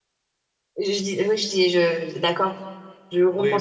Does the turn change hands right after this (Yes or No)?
Yes